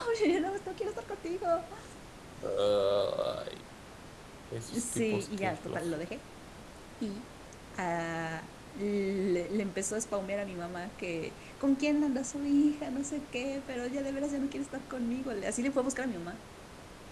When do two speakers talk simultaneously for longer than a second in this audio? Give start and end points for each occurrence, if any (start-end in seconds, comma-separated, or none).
4.7-6.0